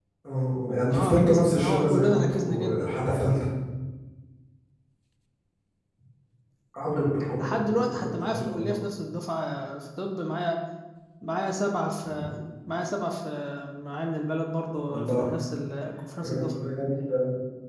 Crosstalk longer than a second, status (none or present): present